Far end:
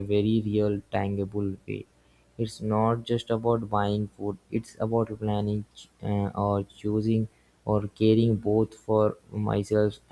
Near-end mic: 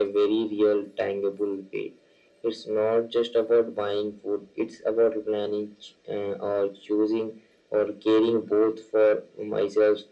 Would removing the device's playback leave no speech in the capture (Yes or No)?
Yes